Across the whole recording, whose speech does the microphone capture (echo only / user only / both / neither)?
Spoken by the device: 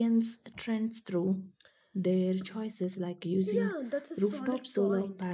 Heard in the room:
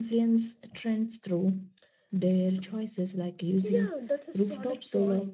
echo only